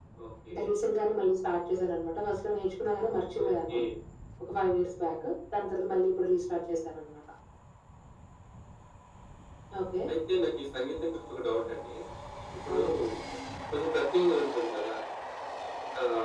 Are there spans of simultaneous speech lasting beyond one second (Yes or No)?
No